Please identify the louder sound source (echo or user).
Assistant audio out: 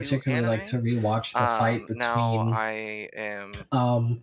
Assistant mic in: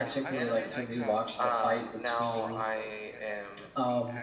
echo